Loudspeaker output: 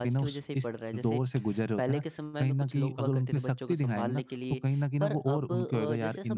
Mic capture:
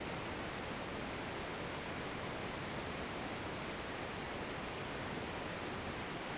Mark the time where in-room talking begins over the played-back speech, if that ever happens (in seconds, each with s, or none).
none